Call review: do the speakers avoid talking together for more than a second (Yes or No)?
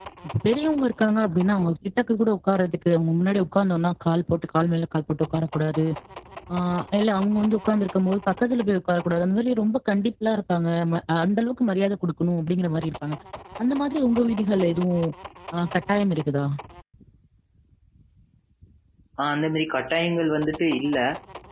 Yes